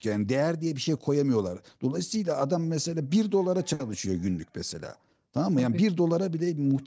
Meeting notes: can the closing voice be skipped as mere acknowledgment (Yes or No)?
Yes